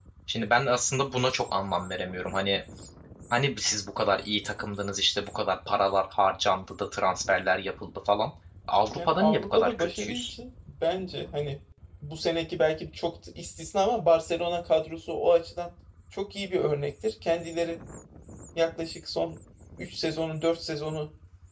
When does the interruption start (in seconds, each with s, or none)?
9.0 s